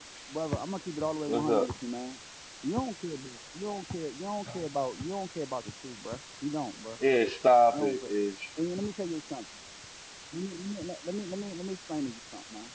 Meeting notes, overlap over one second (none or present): none